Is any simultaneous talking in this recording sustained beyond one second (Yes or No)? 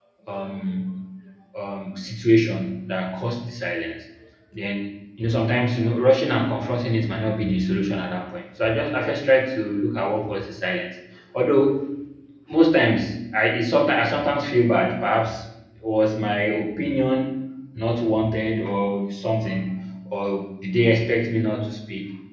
No